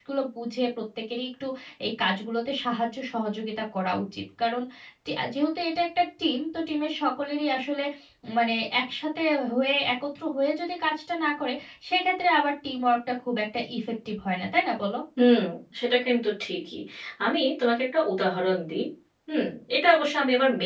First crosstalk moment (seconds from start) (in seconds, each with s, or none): none